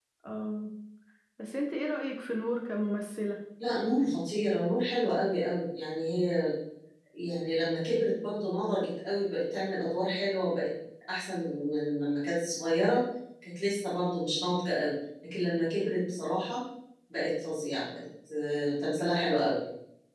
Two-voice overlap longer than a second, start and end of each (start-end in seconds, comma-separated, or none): none